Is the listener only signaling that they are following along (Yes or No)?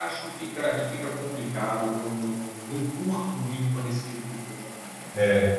No